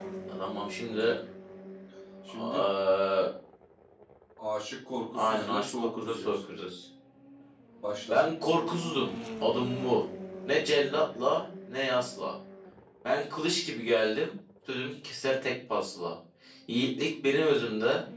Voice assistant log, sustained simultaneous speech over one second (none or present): present